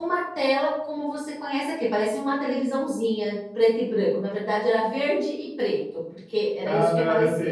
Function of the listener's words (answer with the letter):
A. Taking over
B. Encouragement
A